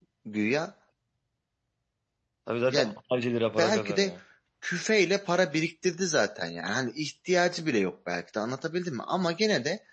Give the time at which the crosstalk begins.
2.7 s

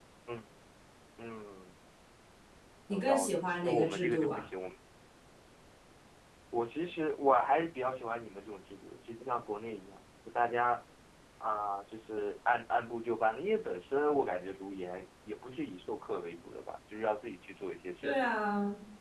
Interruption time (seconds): 2.9 s

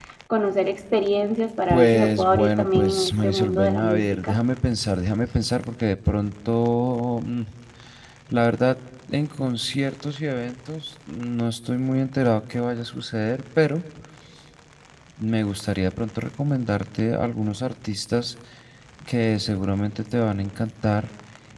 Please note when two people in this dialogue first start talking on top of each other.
1.7 s

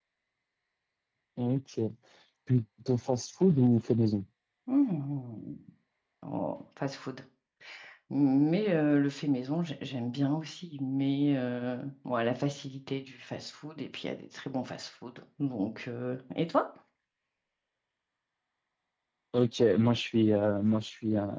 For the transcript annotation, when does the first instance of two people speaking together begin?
none

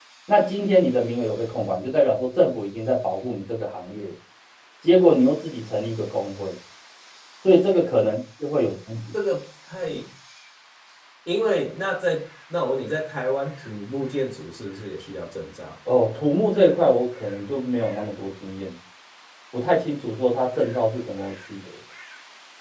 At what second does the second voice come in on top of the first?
none

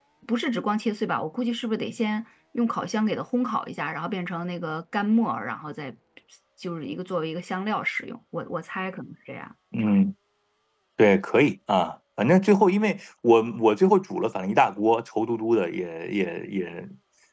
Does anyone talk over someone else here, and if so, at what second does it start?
none

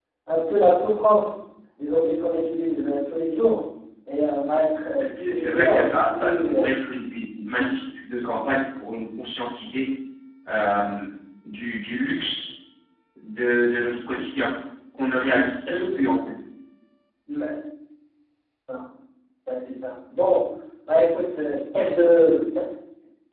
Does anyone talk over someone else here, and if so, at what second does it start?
4.9 s

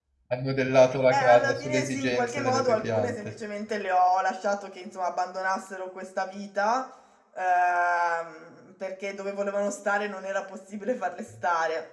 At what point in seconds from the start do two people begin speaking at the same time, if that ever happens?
1.1 s

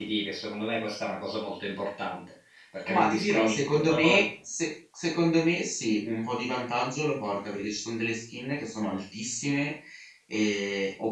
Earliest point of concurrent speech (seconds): 2.9 s

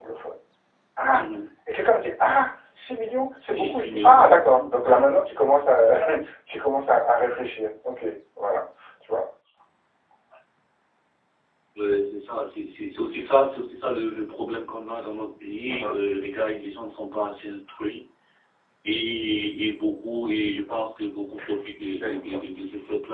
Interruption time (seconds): 3.5 s

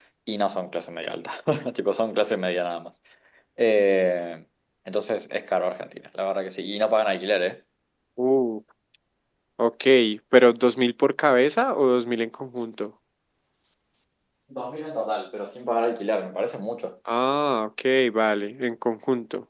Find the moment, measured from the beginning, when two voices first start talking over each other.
none

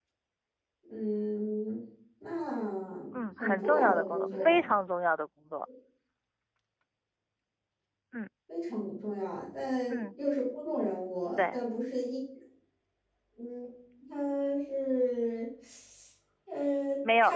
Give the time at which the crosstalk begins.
3.1 s

